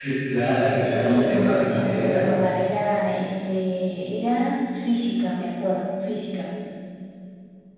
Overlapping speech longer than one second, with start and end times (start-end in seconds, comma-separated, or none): 0.8-2.3